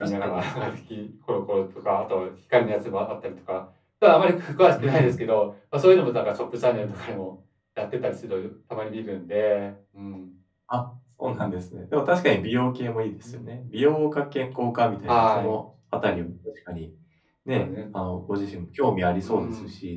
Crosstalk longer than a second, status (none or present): none